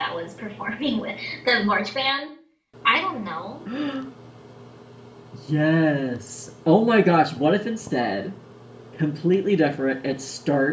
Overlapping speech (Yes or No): No